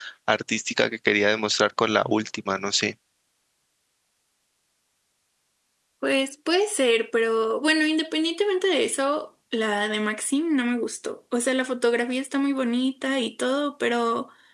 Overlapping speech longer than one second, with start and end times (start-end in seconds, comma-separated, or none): none